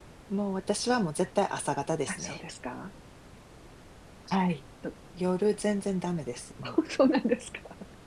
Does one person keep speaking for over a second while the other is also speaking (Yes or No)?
No